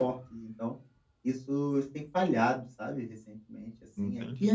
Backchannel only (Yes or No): Yes